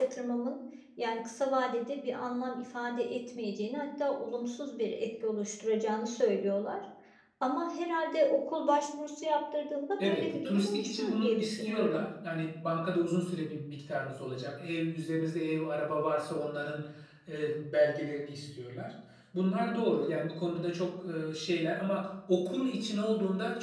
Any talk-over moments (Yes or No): Yes